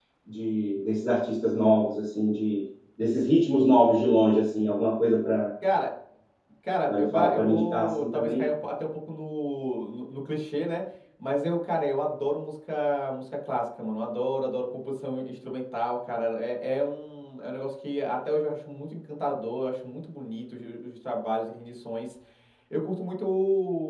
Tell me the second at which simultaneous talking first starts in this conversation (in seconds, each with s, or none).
6.9 s